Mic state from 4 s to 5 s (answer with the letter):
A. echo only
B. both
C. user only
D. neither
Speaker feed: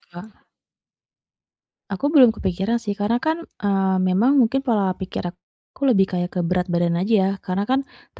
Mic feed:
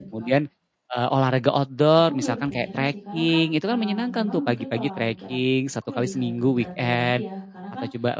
B